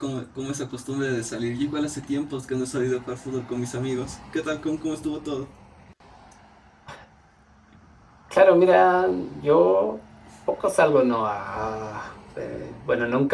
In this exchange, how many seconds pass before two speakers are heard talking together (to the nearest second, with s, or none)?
none